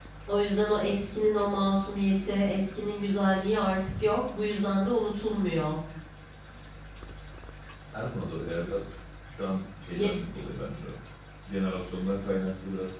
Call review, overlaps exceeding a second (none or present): none